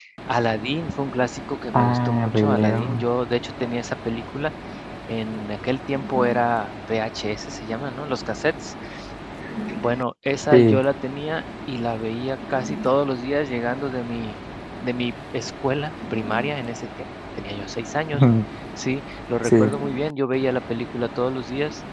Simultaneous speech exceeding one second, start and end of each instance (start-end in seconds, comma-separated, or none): 1.7-3.0